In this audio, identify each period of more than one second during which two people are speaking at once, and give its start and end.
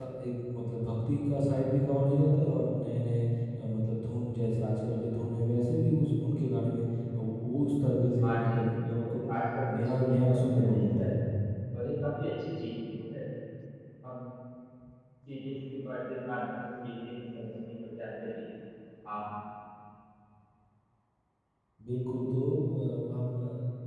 9.7-11.1

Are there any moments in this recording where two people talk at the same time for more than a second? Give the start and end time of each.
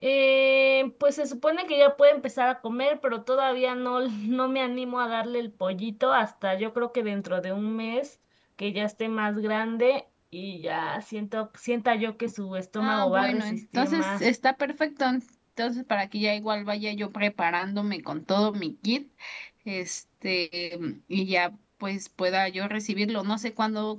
12.8-14.2

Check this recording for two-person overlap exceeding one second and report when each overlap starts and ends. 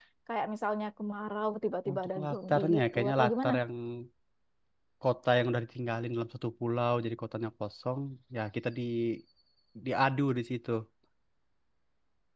1.9-3.5

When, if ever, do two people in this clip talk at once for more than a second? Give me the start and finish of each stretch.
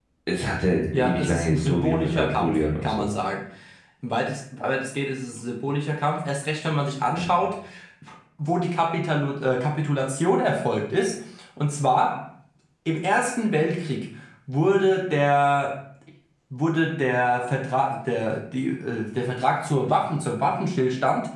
0.9-3.0

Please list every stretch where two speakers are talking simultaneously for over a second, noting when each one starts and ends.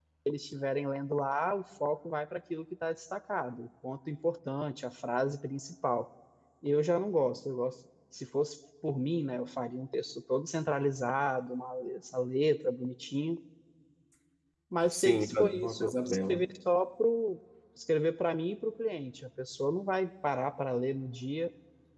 14.9-16.4

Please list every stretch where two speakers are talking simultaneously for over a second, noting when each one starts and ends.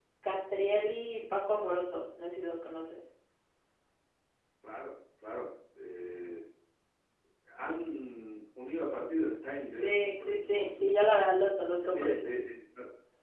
9.8-11.2

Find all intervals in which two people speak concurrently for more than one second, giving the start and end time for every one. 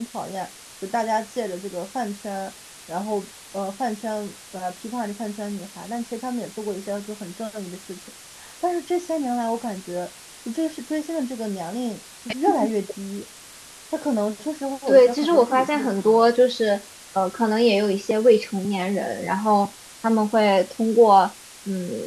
14.9-16.2

